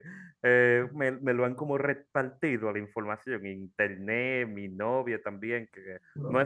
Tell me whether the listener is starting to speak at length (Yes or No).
No